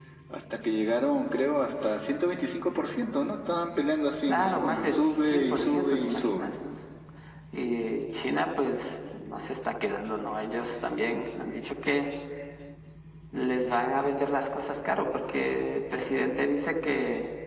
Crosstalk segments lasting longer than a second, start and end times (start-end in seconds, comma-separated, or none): 4.3-6.5